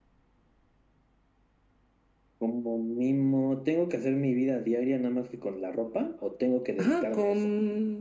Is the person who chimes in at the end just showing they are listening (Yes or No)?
No